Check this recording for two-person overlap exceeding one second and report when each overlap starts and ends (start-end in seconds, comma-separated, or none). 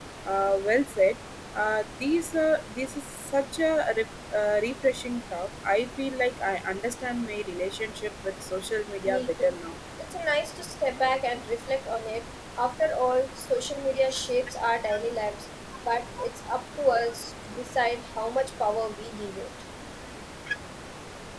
none